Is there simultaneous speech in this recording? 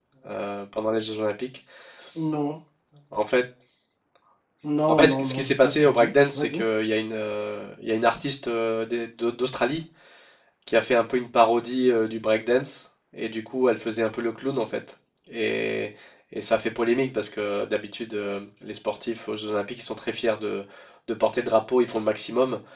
Yes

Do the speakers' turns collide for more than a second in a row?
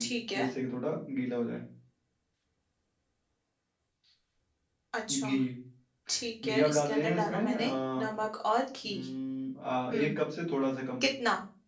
Yes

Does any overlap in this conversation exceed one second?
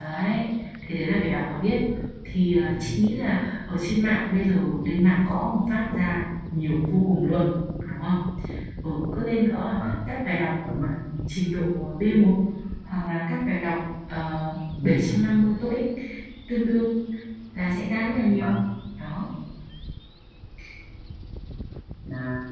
No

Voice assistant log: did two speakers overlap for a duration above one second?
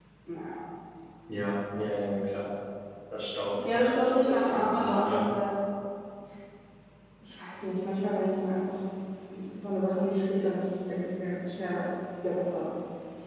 Yes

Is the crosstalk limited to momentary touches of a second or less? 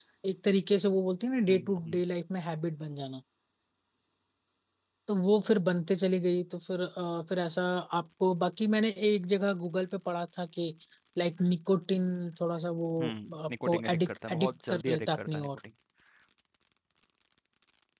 No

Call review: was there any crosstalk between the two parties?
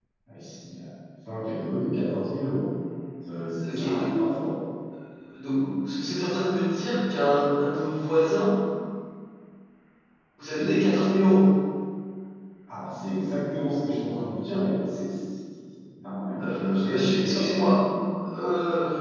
Yes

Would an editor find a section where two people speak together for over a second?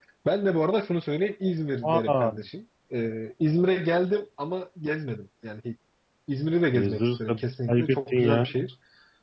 Yes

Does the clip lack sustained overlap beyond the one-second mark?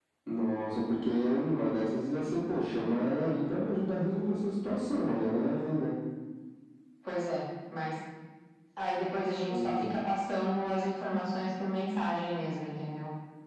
Yes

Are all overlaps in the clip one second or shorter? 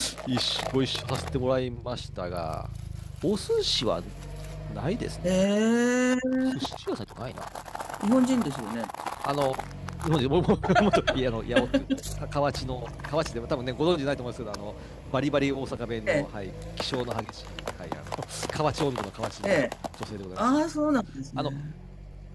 Yes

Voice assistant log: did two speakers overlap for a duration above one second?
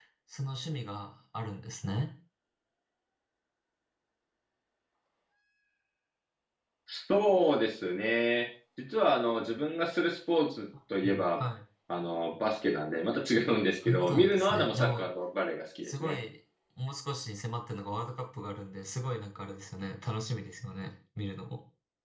Yes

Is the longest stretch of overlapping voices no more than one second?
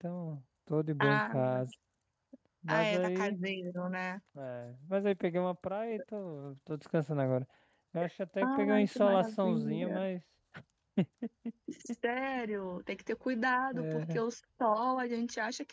No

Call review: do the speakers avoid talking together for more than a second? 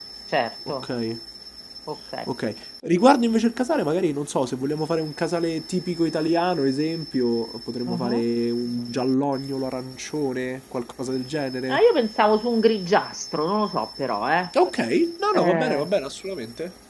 Yes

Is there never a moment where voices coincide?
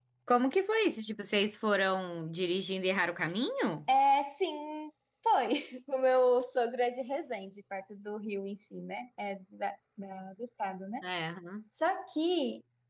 Yes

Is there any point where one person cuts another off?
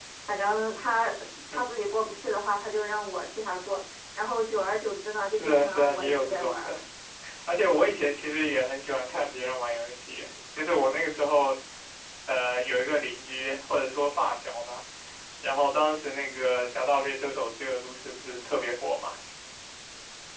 Yes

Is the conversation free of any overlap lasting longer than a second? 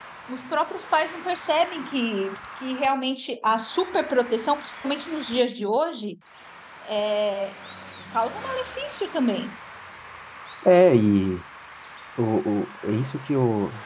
Yes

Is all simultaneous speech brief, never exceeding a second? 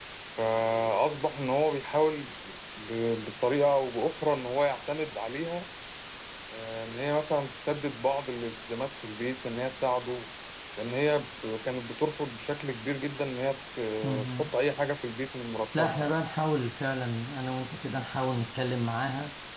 Yes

